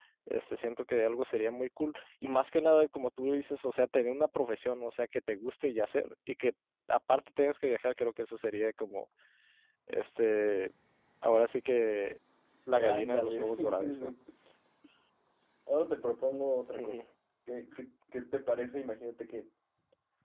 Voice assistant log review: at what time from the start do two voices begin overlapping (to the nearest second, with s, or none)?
13 s